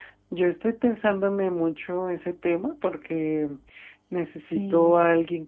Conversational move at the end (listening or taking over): listening